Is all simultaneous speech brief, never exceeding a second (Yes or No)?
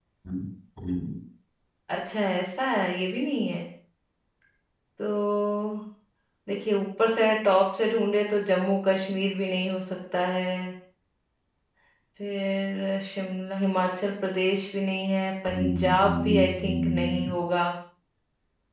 No